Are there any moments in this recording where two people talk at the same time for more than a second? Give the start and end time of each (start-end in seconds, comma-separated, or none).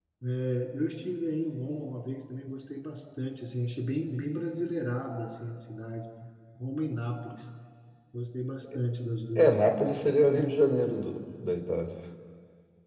none